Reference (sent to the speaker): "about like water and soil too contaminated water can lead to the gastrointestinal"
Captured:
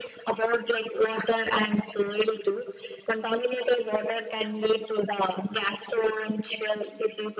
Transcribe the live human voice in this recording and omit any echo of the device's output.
none

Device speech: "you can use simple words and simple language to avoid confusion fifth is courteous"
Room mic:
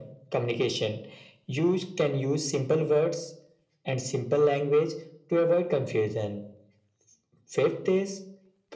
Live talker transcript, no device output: none

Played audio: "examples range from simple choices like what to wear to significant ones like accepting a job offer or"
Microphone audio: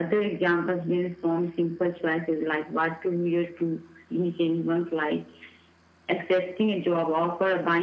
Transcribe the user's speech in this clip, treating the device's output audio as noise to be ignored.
none

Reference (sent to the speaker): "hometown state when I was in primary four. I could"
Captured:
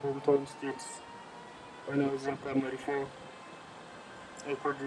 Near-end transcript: none

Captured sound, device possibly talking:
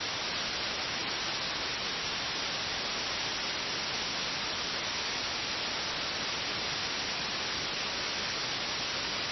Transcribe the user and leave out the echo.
none

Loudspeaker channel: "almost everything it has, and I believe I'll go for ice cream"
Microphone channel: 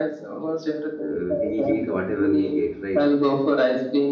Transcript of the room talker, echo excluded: Uh, we eat whatever we get, right?

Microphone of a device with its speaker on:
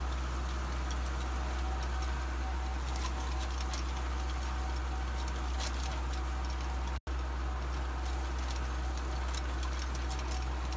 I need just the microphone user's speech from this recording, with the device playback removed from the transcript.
none

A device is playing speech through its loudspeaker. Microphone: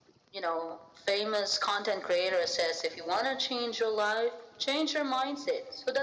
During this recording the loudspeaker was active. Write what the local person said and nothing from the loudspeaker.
none

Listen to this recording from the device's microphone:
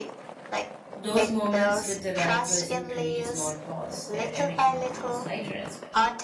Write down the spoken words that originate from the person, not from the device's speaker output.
those moments with the right person create a small pause where everything feels lighter as well.

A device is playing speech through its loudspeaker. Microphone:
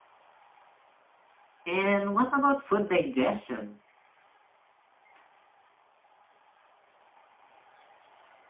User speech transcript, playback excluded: And what about food digestion?

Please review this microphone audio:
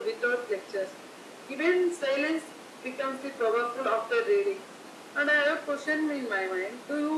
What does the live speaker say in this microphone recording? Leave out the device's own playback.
none

